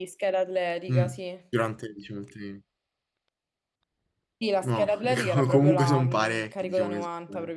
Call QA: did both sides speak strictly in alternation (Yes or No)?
No